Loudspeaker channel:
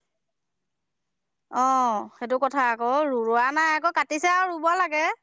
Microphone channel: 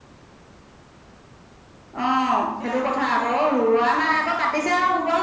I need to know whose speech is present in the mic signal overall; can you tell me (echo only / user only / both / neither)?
both